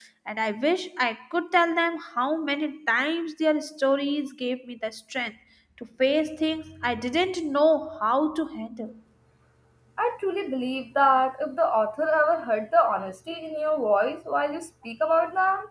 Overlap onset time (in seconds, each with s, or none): none